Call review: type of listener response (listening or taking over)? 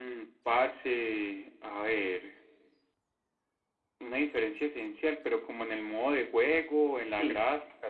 taking over